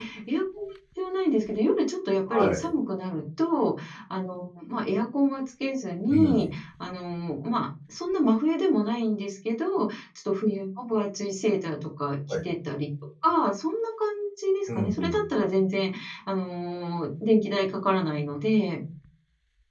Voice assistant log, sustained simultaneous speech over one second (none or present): none